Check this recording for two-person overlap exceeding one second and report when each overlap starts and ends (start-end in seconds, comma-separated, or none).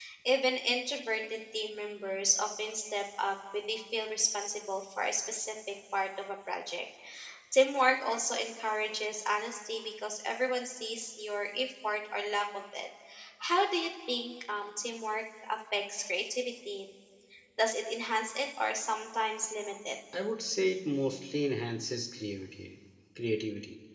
none